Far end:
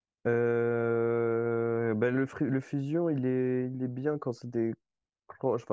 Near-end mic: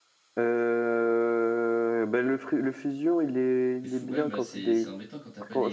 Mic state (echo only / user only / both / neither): both